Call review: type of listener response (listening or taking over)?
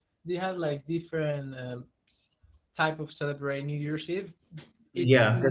taking over